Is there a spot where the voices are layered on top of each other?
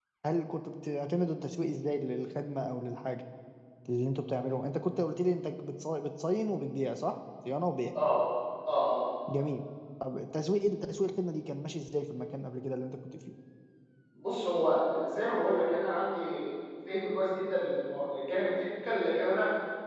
No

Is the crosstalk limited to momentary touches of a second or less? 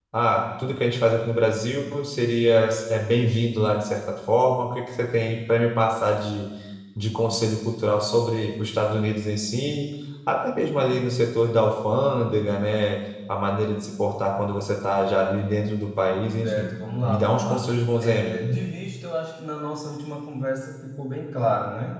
No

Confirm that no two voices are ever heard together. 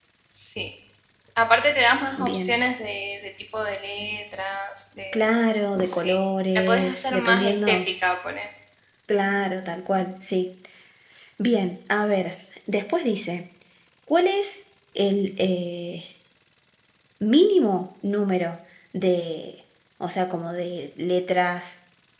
No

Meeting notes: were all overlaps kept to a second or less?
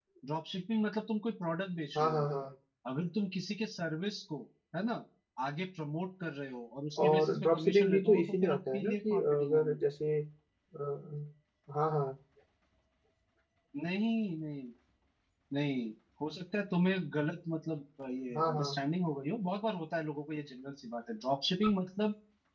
No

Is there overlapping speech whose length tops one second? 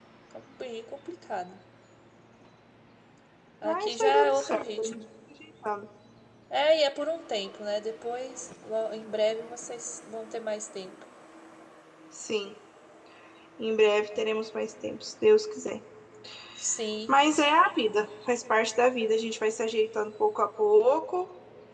Yes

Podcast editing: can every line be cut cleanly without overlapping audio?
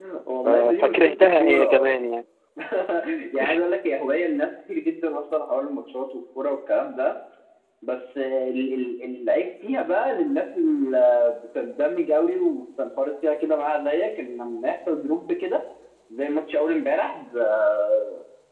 No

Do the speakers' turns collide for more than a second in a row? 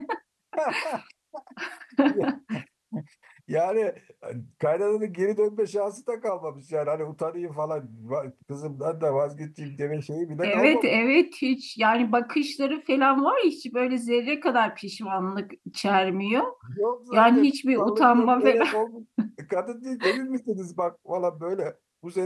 Yes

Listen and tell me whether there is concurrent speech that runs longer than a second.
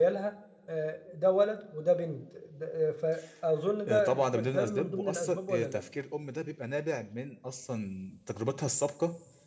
Yes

